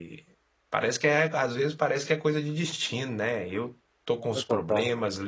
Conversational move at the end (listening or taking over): listening